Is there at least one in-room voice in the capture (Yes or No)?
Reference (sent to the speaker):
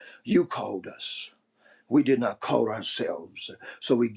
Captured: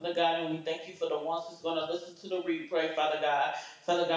Yes